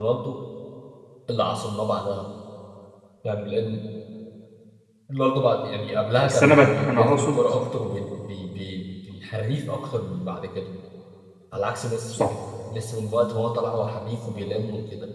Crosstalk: present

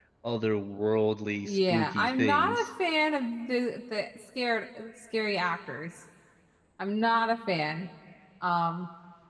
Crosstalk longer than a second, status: present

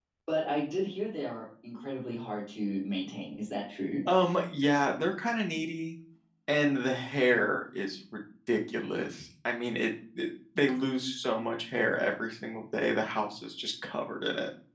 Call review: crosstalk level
none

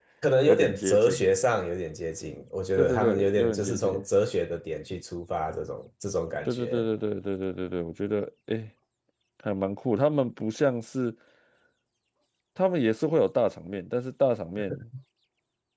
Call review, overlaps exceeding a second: present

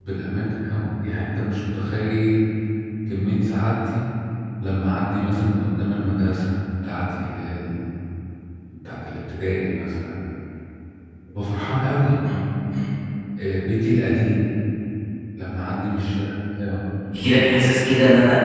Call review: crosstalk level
none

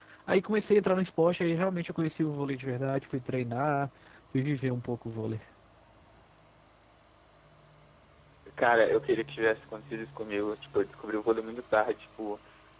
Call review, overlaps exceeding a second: none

